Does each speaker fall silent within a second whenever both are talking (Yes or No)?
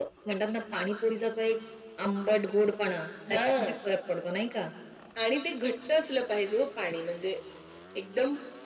Yes